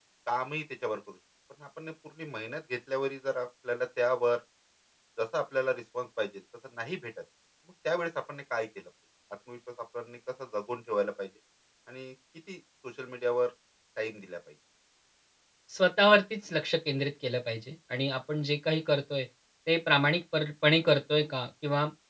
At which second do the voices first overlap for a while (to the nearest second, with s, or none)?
none